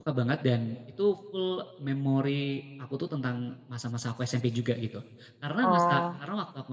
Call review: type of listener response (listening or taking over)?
listening